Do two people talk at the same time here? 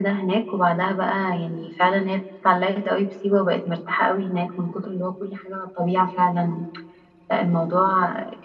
No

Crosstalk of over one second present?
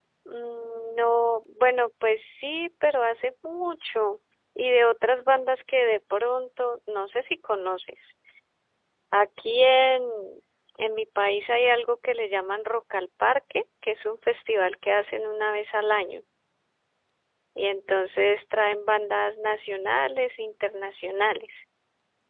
No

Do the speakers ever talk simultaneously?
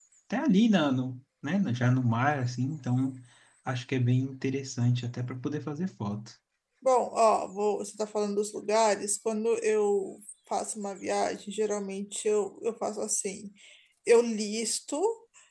No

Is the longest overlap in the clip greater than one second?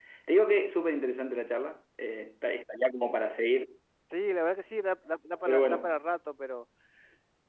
No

